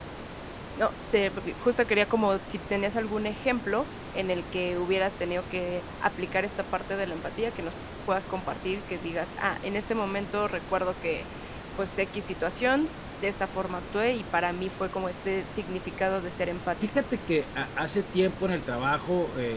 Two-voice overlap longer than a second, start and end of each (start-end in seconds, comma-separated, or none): none